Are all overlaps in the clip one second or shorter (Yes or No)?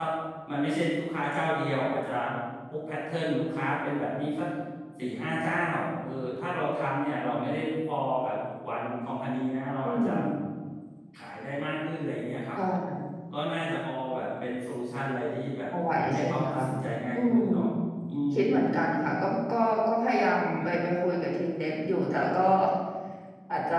Yes